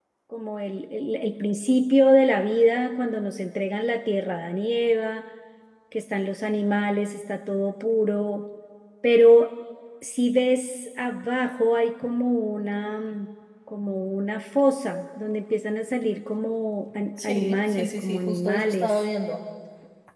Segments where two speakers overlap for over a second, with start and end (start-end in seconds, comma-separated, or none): 17.2-19.0